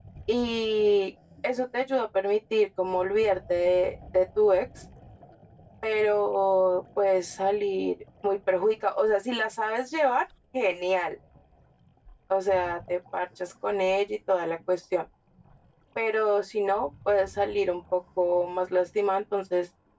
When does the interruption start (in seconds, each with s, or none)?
none